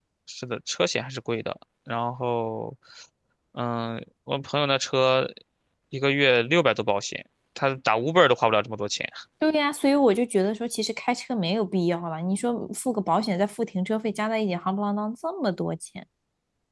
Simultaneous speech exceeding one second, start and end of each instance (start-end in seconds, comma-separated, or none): none